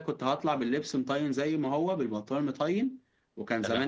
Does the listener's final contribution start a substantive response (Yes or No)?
No